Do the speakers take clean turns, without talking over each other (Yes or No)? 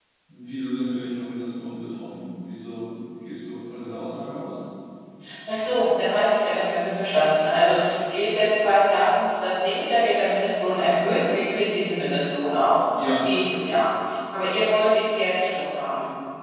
Yes